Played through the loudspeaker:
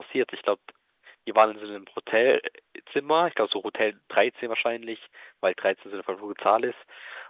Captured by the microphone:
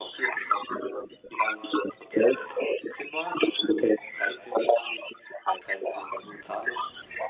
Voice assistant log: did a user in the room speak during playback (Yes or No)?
No